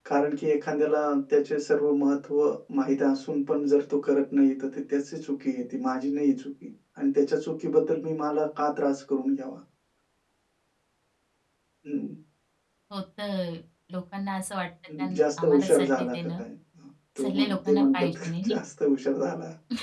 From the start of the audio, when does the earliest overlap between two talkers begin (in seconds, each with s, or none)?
15.0 s